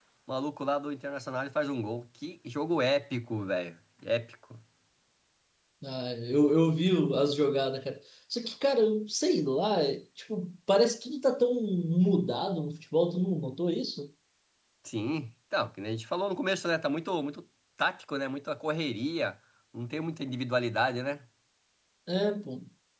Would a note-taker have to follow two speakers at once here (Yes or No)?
No